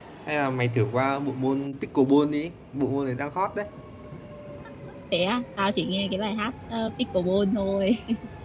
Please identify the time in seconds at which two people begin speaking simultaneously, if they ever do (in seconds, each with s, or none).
none